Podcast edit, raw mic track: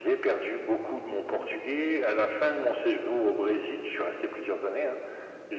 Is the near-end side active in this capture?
No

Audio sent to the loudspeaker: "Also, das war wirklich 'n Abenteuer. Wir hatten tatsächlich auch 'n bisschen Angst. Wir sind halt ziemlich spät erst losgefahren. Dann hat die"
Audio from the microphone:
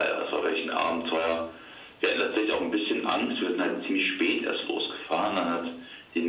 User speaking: No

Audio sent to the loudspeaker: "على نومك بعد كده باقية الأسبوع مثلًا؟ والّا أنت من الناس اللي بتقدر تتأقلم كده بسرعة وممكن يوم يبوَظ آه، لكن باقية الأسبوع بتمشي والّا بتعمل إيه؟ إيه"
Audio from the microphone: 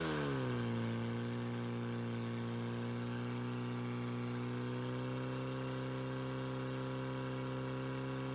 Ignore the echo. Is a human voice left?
No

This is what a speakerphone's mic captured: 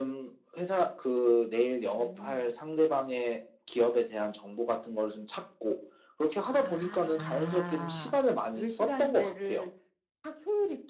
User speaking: Yes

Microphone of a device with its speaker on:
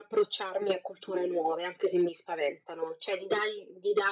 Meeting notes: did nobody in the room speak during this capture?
Yes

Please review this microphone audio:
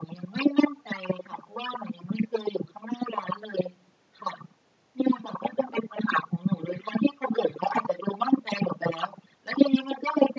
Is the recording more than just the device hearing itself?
No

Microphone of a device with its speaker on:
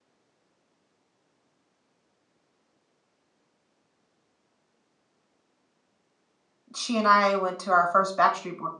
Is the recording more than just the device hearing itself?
Yes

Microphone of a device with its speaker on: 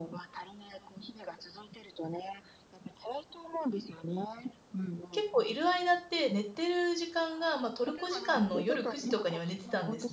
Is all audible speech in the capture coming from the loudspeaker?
No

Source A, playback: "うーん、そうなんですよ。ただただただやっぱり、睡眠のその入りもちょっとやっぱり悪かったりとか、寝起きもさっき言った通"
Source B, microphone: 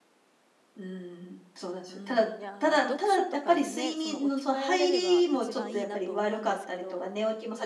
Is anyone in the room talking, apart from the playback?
Yes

